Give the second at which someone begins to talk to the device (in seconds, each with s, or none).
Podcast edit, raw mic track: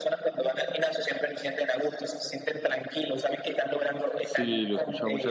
4.2 s